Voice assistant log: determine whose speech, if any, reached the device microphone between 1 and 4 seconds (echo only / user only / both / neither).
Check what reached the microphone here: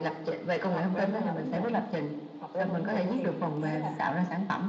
echo only